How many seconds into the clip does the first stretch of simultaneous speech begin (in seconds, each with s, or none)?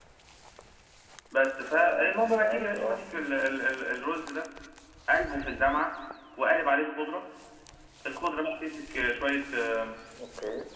1.7 s